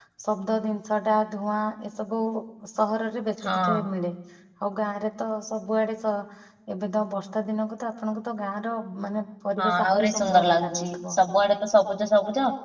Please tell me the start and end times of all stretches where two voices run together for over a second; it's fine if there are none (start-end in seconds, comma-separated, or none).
9.6-10.9